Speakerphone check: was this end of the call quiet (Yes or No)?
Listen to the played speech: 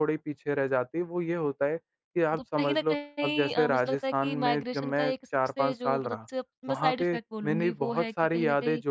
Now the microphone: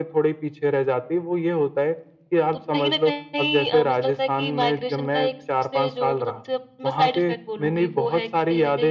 Yes